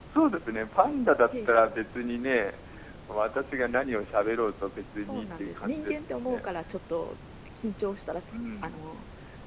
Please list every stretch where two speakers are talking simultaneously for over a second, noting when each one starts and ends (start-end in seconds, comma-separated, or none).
5.0-6.4